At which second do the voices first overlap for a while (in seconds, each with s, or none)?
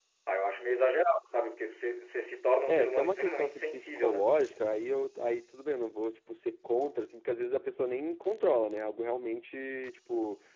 2.7 s